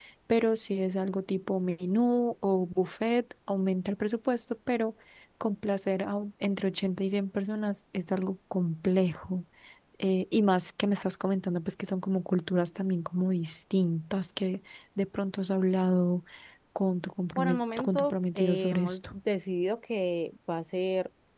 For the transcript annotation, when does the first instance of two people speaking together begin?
17 s

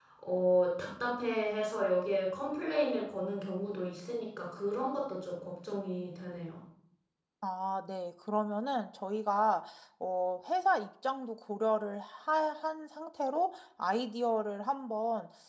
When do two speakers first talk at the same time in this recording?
none

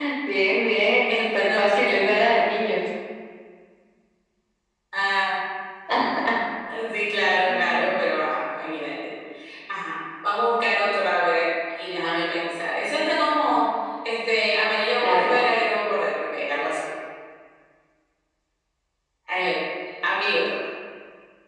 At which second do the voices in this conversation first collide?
1 s

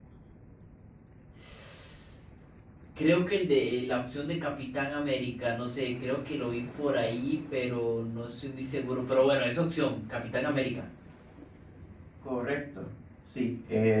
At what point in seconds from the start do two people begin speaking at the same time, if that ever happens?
none

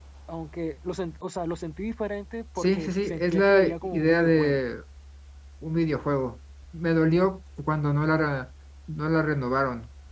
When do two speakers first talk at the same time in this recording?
3 s

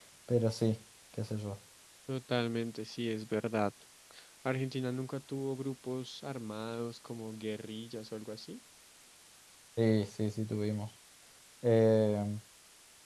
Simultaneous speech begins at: none

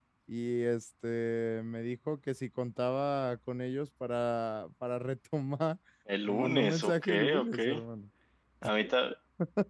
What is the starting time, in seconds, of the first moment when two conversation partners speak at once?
6 s

